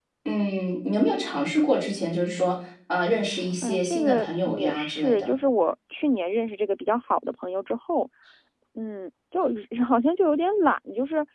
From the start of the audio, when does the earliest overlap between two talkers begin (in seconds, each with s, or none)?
3.6 s